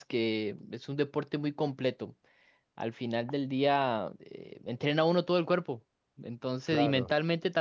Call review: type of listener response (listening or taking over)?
listening